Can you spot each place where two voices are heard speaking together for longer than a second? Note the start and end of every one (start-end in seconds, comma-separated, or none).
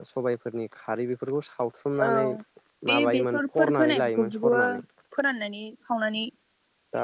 2.9-4.8